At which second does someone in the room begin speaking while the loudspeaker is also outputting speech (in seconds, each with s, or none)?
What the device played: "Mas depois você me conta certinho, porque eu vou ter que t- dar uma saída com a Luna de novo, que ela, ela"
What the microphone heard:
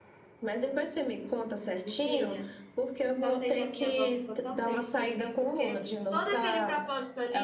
1.8 s